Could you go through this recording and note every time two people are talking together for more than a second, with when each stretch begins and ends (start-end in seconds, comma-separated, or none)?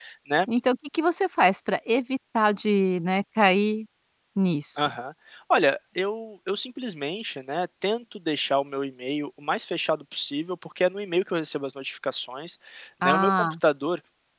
none